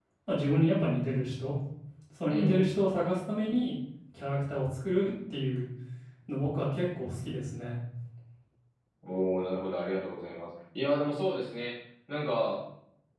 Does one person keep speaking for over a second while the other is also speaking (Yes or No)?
No